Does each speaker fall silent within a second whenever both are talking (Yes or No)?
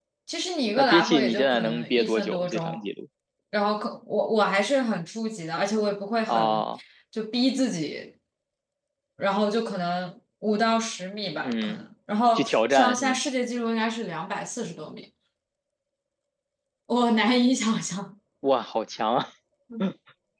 No